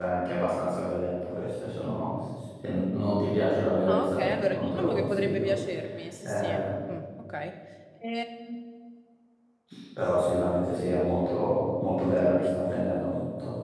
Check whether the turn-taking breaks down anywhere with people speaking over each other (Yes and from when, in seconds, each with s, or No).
Yes, from 3.9 s